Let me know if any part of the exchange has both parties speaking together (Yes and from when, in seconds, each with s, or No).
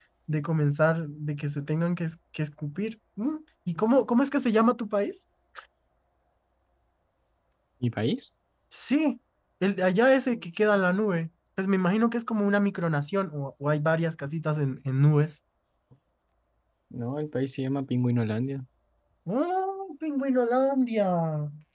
No